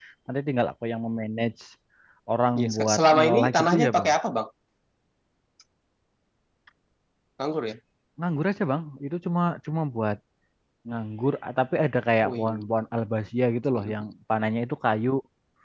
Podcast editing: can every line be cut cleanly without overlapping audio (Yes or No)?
No